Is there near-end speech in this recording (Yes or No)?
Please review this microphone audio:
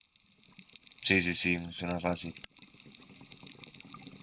Yes